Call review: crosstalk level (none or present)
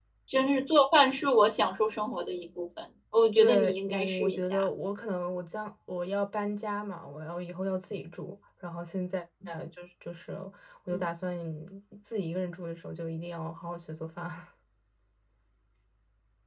present